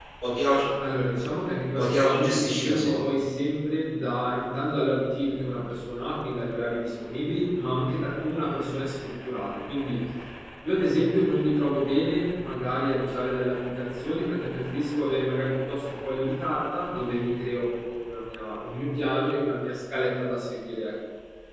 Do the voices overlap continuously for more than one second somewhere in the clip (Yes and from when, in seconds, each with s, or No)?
Yes, from 1.7 s